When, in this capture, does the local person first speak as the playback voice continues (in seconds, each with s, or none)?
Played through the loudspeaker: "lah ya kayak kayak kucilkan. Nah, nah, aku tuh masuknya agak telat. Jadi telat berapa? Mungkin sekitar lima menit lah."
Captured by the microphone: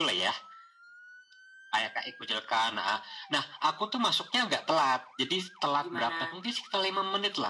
5.8 s